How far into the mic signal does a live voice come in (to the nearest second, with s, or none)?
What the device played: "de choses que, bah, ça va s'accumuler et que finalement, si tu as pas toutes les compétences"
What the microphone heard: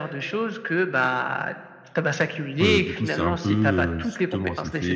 3 s